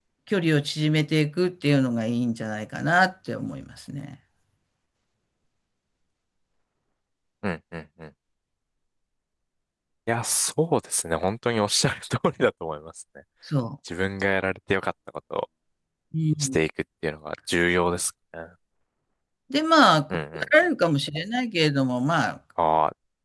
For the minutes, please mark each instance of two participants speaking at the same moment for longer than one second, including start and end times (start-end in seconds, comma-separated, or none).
none